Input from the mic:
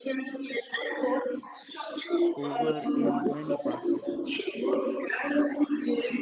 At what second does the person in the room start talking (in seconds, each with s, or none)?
2.4 s